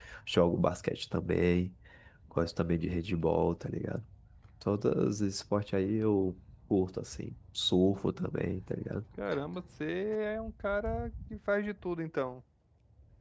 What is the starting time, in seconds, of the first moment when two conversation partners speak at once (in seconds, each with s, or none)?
none